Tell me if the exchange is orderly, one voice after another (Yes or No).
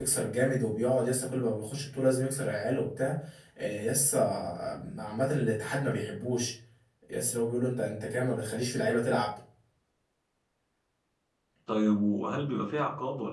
Yes